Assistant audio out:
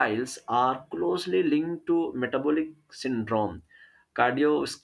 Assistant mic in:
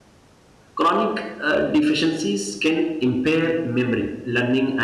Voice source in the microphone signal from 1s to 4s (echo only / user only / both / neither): user only